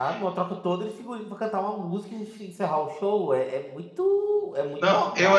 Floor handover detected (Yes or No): Yes